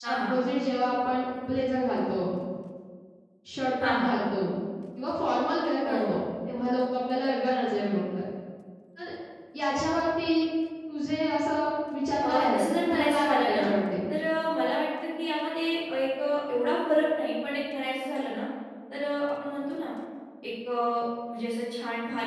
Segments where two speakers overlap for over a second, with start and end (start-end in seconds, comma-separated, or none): 12.2-13.7